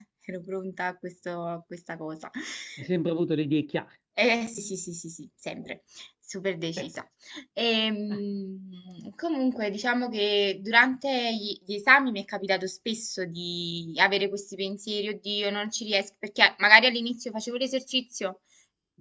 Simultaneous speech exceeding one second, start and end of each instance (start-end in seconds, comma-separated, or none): none